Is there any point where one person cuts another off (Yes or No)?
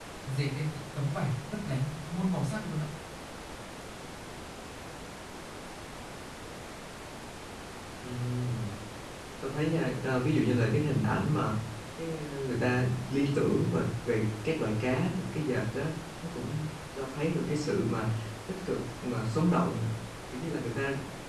No